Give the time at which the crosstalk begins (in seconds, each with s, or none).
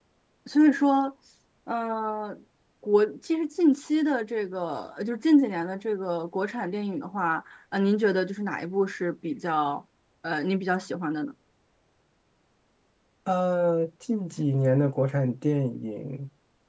none